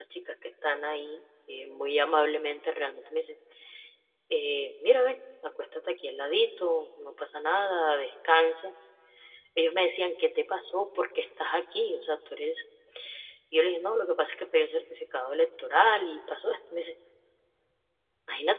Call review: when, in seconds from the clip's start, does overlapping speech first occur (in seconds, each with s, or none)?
none